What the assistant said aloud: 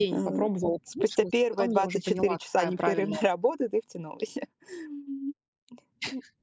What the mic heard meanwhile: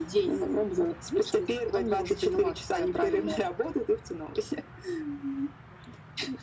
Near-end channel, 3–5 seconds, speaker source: echo only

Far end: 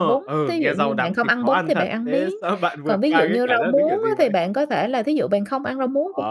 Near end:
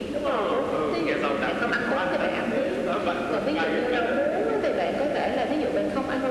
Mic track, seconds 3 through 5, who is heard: echo only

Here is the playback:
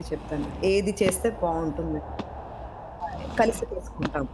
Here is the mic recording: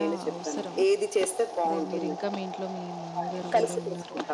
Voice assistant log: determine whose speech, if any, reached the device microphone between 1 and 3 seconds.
both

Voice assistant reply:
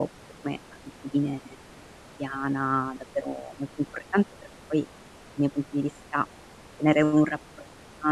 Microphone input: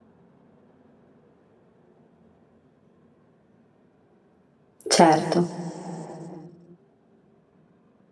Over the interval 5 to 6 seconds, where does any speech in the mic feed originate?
user only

